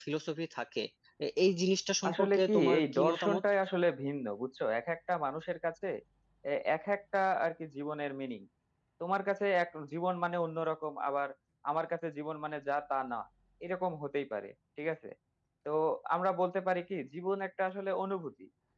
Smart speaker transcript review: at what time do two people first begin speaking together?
2 s

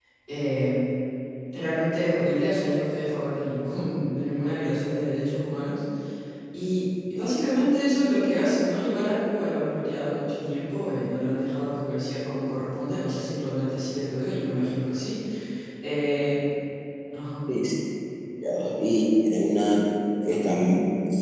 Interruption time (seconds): none

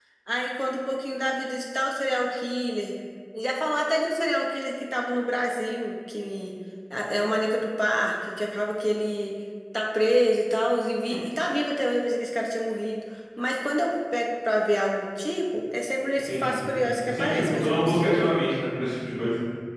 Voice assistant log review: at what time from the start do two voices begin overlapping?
16 s

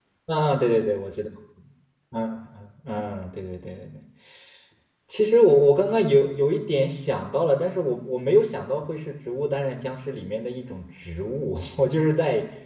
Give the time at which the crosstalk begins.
none

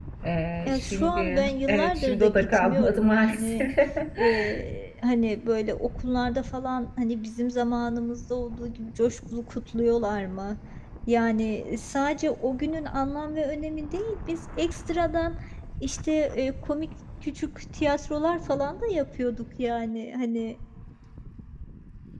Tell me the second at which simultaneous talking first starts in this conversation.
1 s

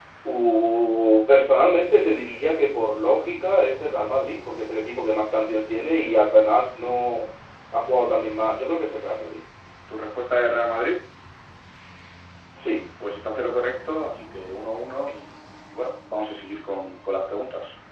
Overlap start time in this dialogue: none

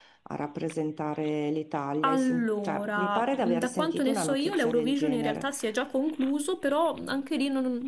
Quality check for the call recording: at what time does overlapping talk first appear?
2 s

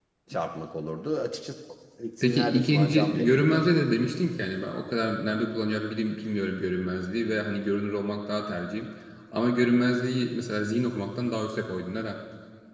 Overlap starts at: 2 s

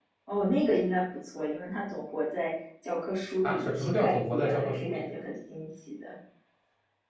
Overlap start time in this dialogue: 3 s

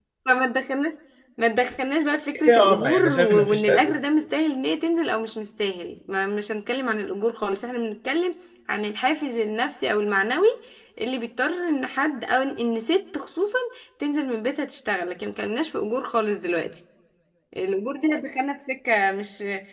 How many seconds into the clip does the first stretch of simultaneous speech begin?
2 s

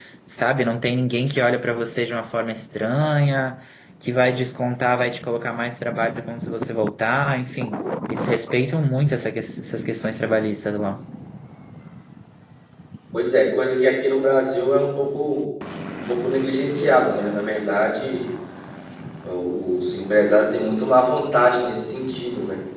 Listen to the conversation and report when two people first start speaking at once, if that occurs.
none

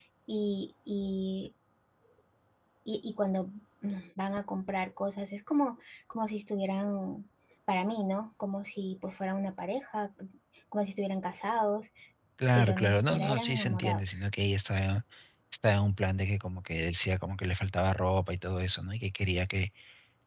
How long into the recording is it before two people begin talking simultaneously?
13 s

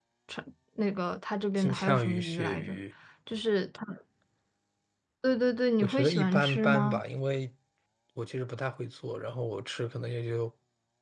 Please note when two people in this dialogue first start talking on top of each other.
2 s

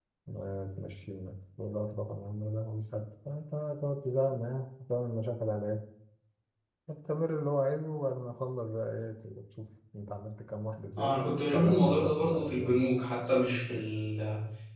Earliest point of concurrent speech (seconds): 11 s

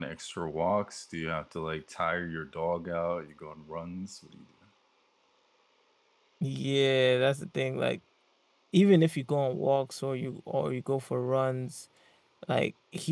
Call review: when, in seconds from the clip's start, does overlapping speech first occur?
none

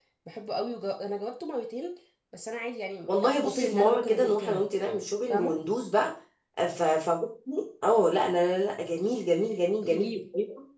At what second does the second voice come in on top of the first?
3 s

